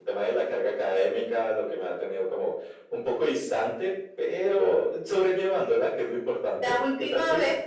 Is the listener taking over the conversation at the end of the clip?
Yes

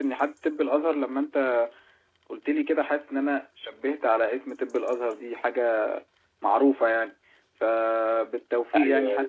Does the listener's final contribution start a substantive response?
No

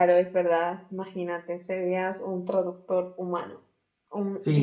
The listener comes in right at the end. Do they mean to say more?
Yes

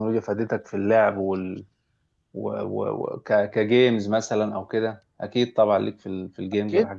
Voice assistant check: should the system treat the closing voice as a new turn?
Yes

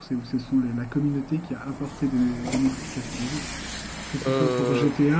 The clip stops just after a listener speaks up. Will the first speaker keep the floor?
Yes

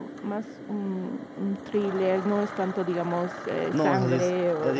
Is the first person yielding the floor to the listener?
Yes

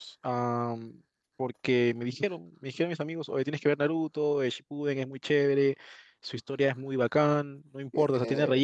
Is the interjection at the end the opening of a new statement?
No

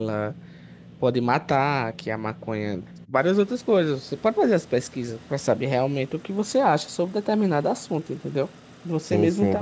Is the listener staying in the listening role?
No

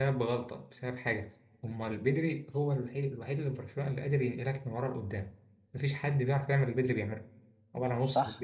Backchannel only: No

